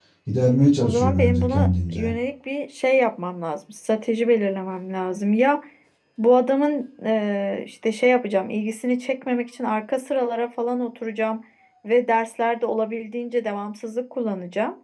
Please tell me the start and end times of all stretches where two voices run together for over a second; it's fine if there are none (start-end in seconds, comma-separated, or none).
0.8-2.1